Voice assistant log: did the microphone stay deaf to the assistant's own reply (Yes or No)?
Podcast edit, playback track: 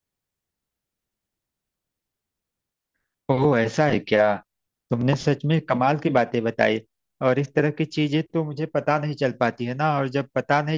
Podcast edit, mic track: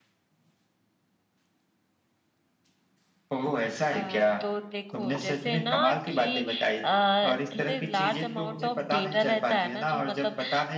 No